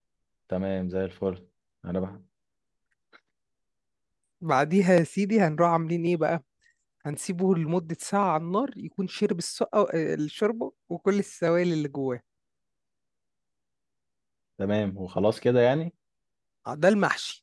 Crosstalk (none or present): none